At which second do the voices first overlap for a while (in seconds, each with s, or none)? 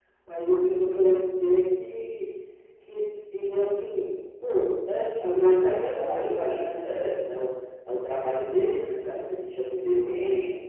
5.2 s